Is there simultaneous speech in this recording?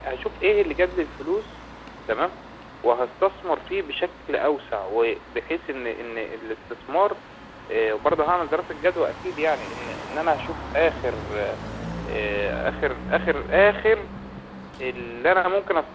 No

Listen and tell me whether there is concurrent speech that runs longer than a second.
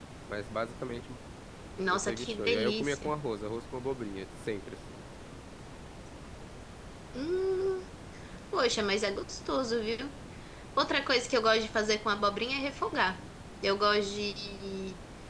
Yes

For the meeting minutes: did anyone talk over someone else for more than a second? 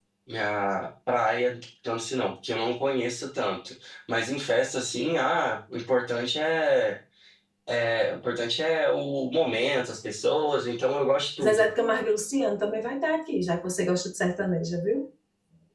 No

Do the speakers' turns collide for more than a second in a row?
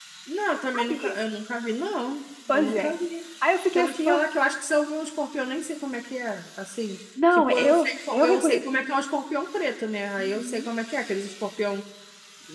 Yes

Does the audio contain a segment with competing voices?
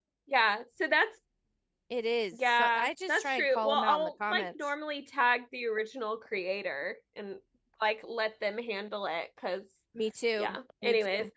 Yes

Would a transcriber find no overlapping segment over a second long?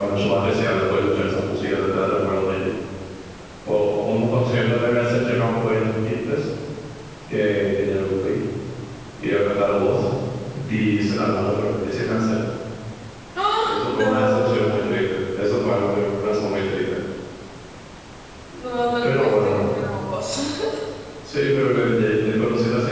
No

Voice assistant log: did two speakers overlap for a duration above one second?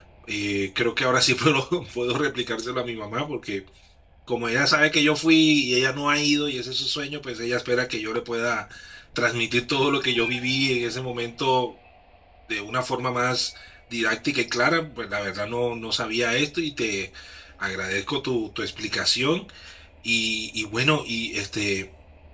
No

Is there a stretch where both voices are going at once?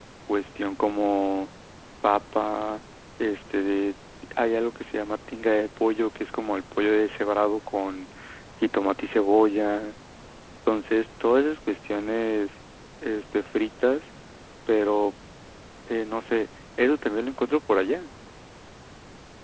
No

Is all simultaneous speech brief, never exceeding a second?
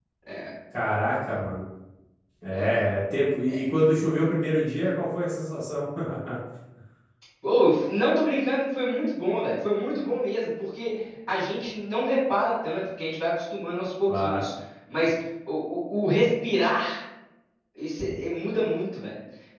Yes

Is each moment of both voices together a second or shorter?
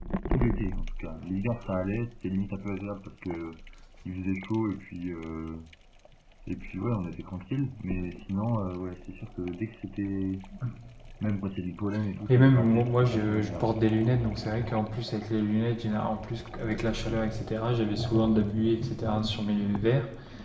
No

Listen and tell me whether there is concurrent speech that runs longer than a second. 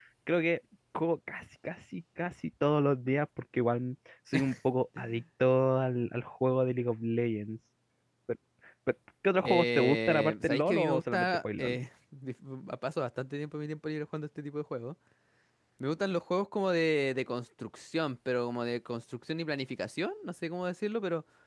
Yes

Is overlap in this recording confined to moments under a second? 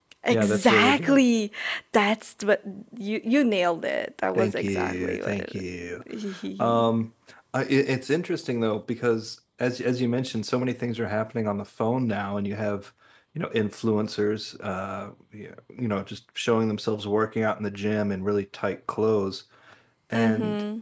No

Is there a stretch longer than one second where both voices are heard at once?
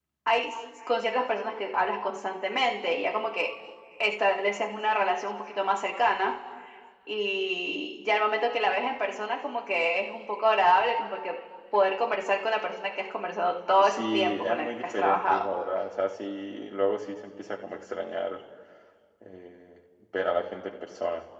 Yes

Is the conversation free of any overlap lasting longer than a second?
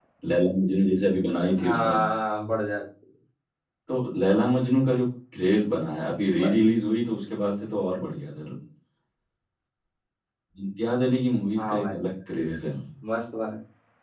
Yes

